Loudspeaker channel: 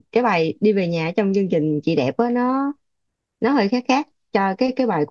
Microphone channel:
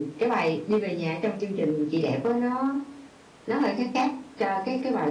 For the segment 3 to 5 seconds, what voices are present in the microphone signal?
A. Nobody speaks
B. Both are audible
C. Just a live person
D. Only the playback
D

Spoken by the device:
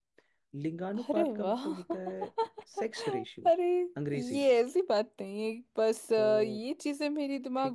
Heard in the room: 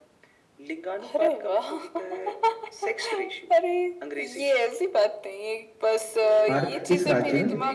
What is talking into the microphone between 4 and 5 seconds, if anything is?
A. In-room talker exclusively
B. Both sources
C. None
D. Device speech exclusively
D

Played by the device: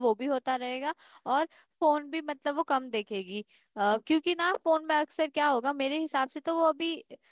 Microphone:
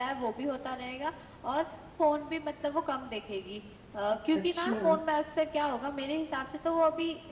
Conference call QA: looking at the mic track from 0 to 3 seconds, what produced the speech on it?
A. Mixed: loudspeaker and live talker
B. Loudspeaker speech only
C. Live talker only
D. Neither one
B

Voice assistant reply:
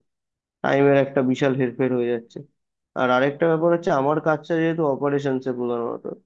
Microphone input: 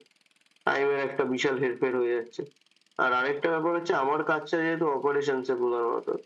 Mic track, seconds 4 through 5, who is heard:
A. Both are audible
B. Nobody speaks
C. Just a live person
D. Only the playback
D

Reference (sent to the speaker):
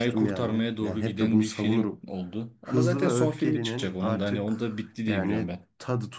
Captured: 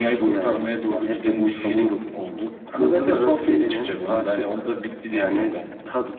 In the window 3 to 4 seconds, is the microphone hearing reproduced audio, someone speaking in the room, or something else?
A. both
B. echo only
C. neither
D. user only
B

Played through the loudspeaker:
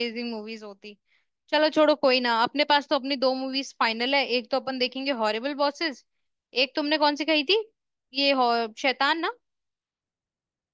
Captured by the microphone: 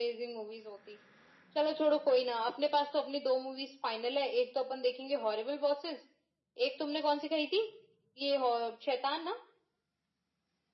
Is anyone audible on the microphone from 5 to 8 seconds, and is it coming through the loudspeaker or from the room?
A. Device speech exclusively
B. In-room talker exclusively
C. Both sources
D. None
A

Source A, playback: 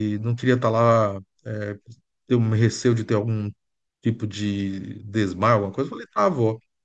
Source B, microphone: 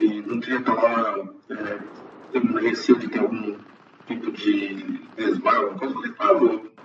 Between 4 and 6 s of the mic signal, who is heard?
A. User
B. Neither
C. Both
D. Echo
D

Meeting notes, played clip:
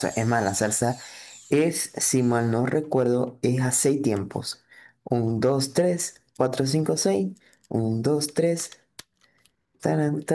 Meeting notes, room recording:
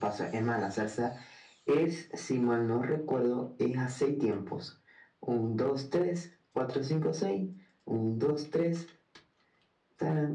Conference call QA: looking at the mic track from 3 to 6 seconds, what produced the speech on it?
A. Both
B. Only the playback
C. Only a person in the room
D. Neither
B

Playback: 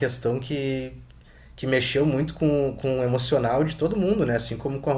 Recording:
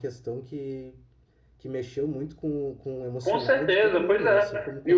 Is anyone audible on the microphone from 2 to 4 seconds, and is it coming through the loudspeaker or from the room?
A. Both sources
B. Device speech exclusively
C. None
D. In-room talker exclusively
A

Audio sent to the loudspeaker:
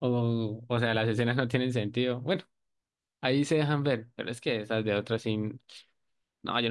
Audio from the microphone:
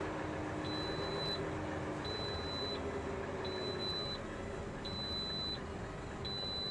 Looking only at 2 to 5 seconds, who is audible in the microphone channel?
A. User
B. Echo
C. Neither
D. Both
C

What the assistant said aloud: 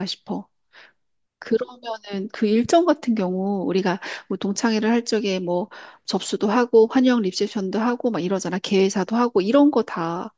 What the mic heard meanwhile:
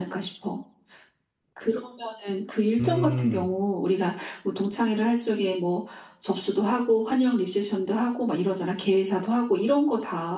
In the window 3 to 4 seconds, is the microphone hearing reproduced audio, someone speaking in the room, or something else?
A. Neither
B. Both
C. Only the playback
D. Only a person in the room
B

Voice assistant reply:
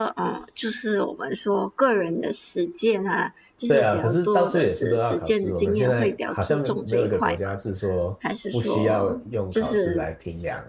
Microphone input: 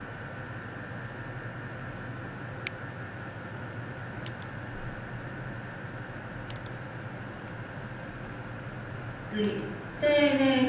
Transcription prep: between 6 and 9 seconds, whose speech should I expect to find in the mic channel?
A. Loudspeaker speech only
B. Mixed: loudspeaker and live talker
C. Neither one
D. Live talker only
C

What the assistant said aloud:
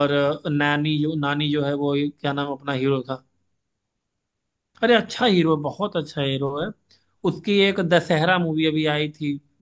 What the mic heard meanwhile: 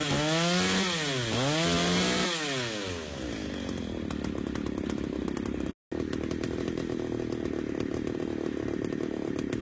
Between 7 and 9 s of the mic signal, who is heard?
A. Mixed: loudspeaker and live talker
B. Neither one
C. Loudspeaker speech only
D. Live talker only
B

